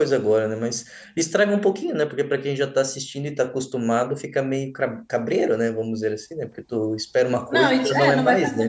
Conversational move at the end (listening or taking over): taking over